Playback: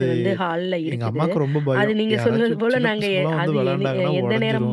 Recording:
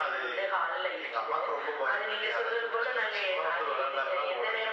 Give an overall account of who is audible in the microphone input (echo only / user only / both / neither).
echo only